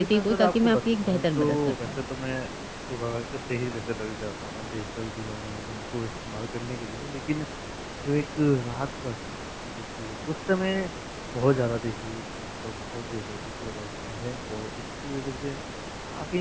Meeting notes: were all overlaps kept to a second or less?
No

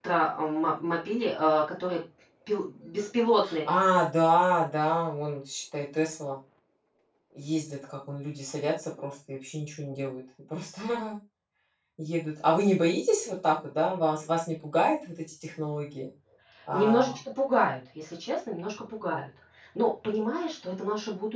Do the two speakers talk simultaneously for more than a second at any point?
No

